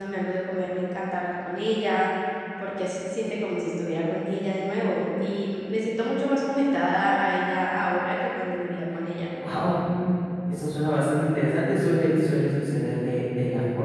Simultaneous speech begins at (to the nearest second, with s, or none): none